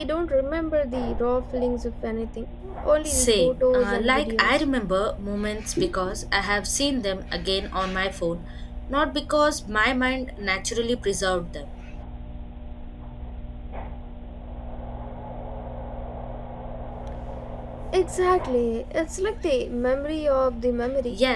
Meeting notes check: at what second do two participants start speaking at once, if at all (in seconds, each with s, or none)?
3.0 s